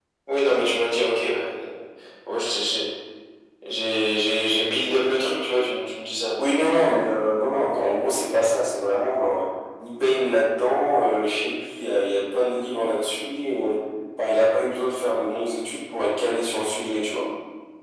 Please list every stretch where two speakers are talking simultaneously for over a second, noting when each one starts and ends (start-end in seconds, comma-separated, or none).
none